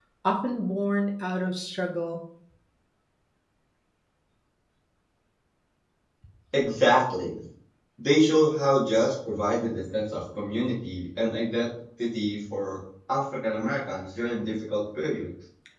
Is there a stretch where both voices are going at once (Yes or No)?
No